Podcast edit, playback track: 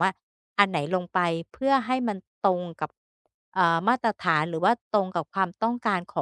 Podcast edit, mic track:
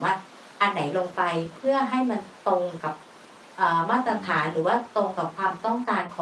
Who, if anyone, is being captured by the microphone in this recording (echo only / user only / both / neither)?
both